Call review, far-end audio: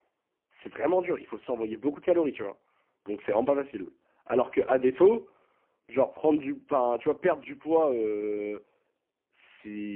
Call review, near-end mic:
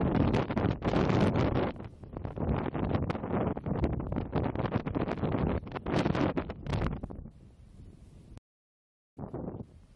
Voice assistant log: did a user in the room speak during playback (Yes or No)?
No